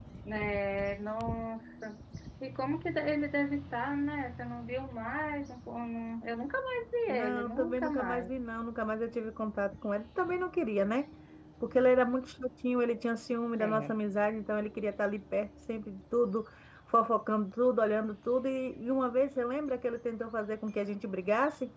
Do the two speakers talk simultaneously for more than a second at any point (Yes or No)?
Yes